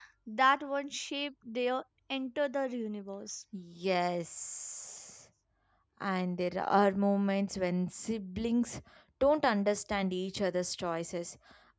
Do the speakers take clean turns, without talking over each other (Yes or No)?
Yes